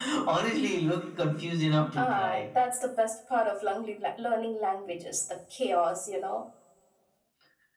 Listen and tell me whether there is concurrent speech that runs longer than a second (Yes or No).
No